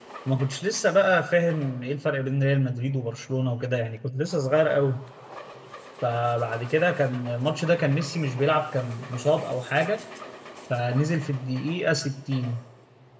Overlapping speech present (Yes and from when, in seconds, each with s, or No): No